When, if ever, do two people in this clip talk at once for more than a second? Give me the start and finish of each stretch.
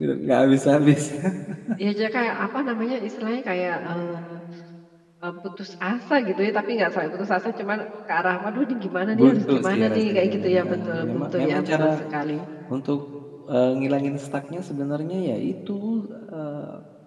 9.1-11.9

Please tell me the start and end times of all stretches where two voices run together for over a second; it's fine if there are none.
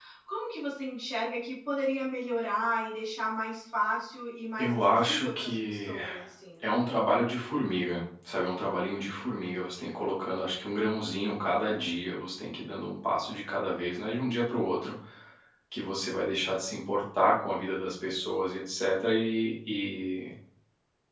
4.6-5.9

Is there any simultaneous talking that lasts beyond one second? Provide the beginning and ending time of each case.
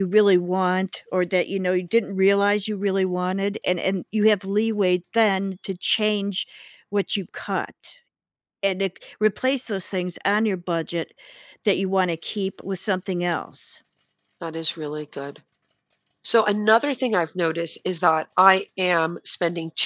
none

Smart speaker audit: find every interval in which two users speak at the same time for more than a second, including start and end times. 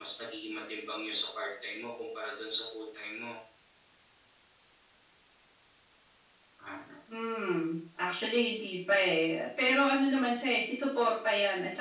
none

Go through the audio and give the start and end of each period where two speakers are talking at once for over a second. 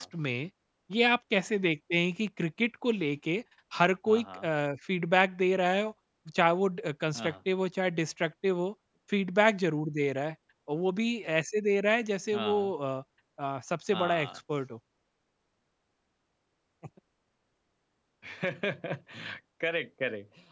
none

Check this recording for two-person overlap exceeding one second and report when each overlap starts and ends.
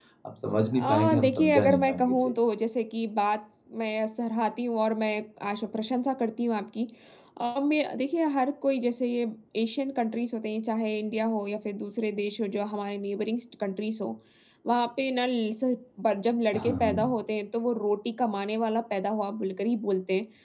0.7-2.3

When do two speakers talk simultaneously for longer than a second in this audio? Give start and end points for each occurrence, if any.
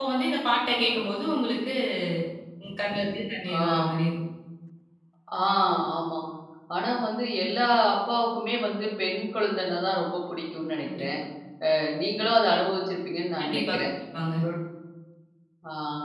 none

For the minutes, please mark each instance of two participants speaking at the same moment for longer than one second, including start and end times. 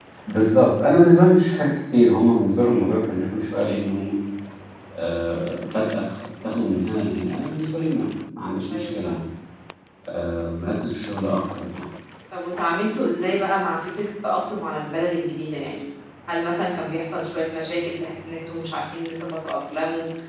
none

